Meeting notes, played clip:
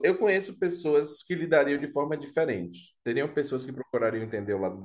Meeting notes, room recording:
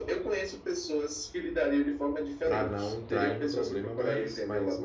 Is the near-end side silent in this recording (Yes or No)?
No